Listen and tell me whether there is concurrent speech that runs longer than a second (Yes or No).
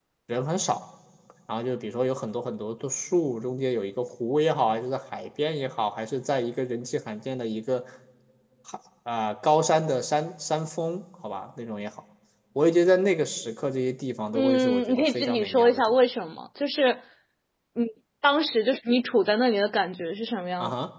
Yes